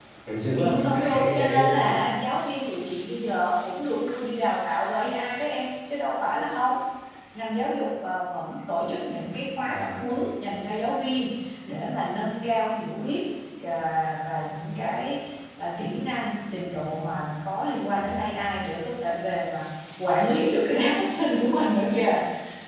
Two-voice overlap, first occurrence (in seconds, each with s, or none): 0.5 s